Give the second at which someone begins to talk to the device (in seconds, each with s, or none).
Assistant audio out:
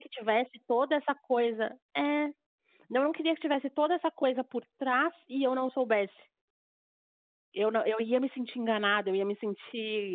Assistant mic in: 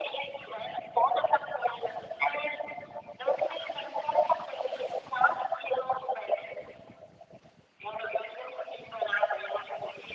none